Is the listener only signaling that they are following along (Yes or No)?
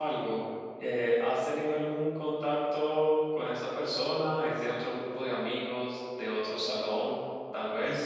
Yes